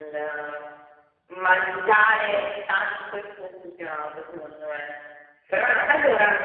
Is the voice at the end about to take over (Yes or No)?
No